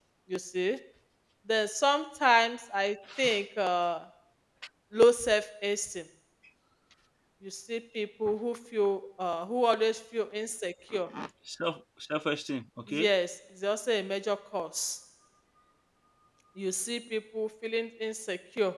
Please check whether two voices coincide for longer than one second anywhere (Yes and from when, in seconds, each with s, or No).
No